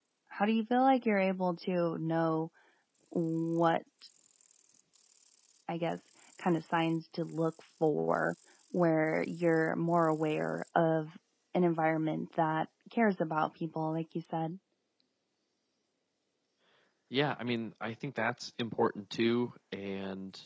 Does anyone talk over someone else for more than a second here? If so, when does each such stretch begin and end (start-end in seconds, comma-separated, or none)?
none